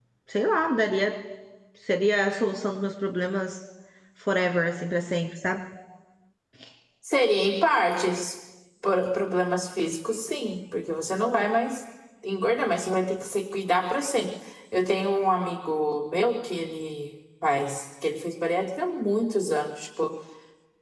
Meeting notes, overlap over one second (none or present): none